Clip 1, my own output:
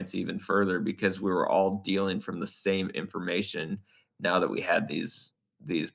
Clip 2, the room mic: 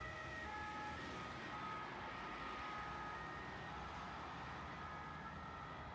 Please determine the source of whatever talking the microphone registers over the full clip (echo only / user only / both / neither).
neither